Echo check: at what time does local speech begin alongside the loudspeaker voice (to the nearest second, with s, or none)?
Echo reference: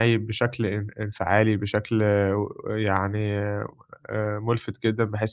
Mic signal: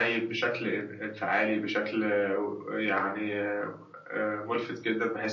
none